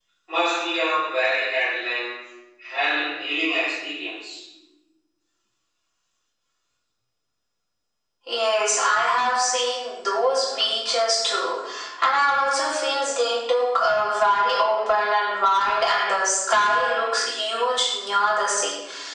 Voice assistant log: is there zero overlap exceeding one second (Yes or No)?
Yes